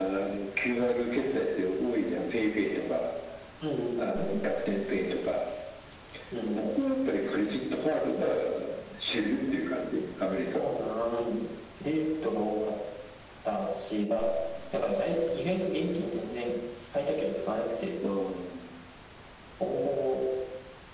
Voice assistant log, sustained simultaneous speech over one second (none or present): none